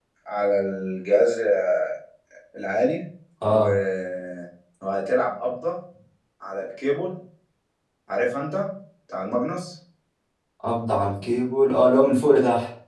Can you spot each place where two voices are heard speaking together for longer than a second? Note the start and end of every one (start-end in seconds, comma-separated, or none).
none